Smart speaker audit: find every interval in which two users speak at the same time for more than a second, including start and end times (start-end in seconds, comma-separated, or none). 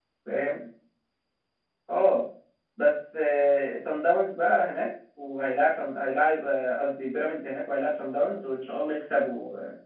none